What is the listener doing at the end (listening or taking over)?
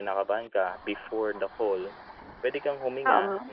listening